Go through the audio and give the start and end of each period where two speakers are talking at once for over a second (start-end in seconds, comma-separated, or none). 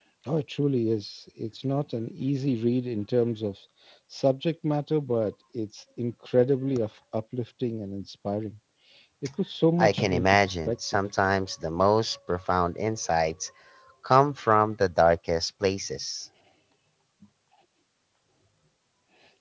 9.8-11.0